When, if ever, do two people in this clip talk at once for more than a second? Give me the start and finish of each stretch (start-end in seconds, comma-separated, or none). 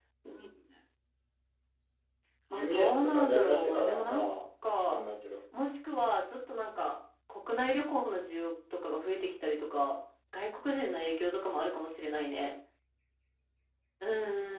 2.5-4.3